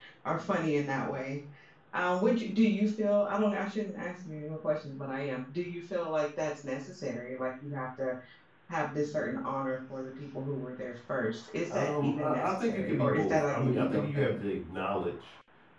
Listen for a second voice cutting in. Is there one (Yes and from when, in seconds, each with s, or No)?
Yes, from 11.7 s